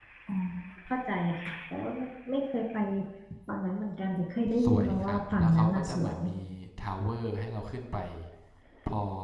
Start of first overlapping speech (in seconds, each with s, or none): 4.5 s